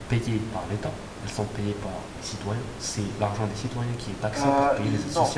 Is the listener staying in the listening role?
No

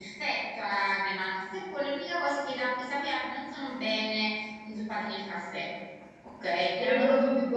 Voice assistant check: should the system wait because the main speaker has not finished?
No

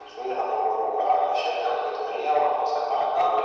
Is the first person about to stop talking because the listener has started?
Yes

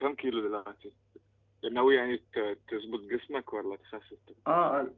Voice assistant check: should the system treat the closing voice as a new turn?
Yes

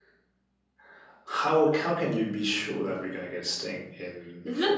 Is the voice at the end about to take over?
Yes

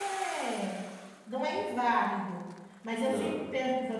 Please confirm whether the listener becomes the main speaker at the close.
No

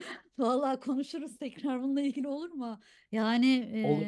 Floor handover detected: No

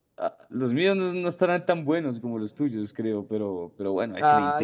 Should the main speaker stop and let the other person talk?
Yes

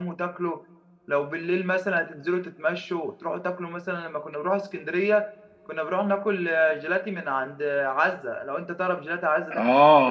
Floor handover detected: Yes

